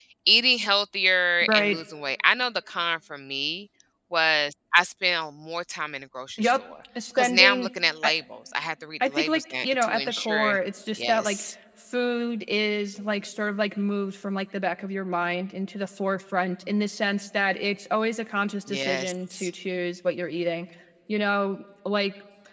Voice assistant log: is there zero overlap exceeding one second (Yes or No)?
No